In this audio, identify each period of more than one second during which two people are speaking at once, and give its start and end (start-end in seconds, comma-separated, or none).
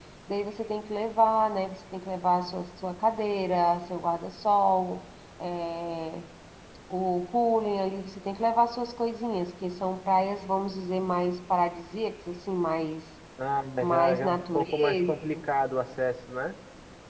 13.8-15.4